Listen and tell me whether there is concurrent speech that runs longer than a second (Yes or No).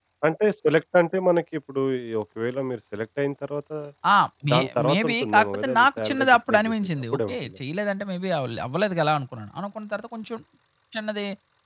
Yes